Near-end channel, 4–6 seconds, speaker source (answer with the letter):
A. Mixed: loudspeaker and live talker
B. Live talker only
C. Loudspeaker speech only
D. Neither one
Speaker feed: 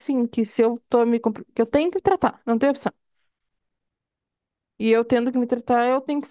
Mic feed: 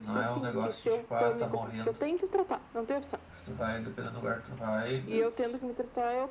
A